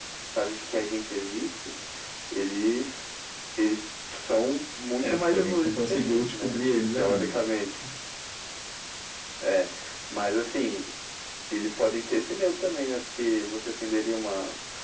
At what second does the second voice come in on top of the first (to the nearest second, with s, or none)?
5 s